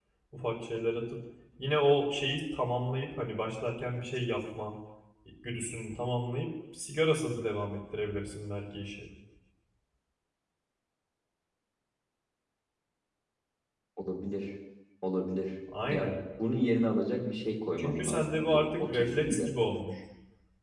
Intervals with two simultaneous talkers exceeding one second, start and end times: 17.8-19.5

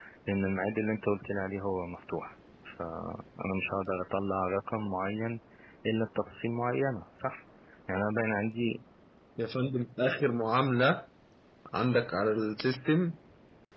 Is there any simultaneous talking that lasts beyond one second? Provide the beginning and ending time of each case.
none

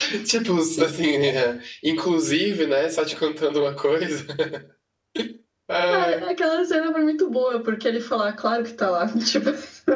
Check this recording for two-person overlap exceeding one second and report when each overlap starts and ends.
none

